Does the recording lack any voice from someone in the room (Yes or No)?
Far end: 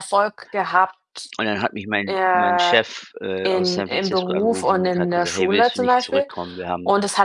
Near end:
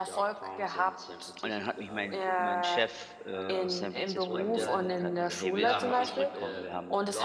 No